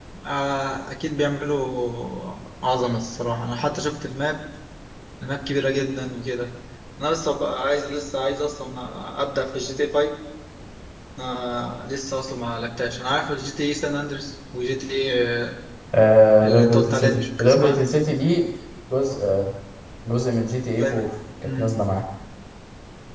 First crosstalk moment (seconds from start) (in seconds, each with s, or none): 16.4 s